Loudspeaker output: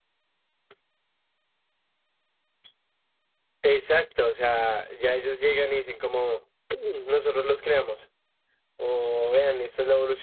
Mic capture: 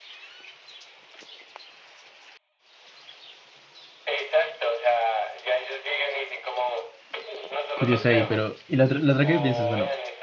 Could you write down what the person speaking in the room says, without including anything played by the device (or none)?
curioso ahí, pero y la otra, la otra que pienso es, bueno,